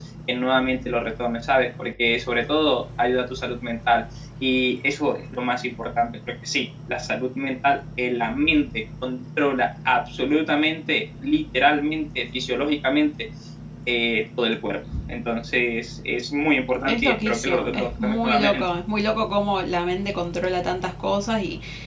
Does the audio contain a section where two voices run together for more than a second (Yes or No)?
Yes